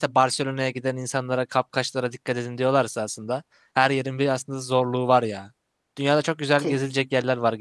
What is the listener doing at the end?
listening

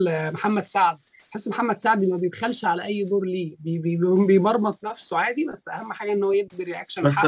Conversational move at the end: taking over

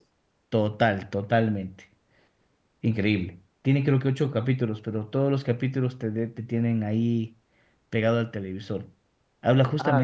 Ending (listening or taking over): listening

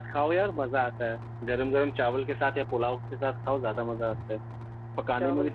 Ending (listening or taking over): listening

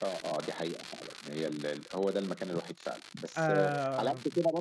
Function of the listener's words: listening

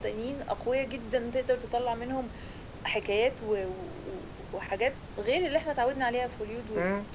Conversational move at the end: taking over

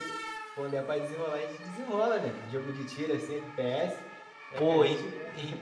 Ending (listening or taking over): taking over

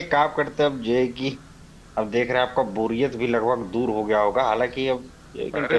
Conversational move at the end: listening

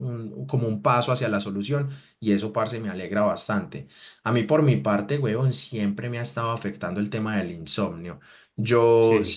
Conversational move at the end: listening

